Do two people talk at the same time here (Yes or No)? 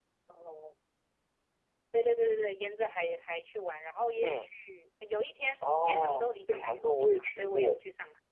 Yes